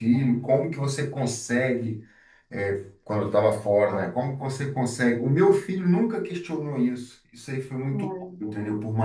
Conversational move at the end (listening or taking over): listening